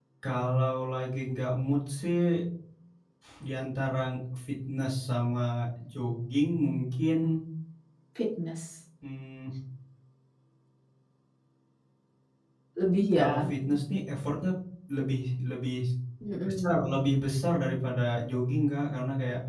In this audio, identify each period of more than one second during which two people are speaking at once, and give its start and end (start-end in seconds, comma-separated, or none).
none